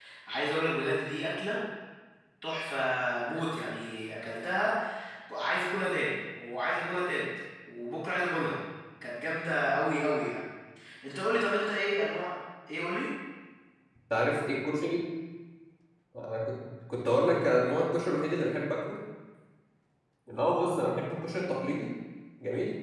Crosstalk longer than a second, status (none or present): none